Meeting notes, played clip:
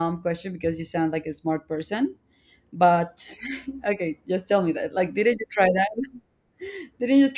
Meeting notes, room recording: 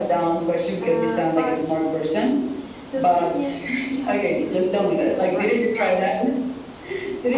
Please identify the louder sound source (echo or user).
echo